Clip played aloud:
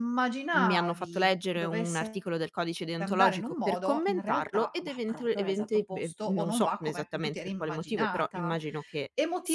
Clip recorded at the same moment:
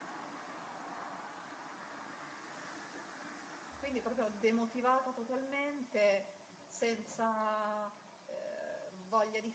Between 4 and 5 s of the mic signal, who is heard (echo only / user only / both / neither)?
user only